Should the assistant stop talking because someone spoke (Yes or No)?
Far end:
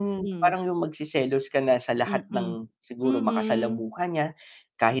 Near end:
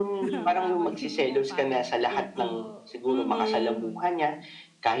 Yes